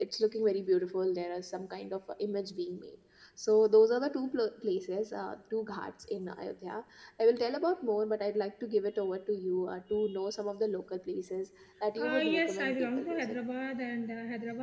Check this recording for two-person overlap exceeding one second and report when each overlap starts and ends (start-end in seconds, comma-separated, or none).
12.0-13.4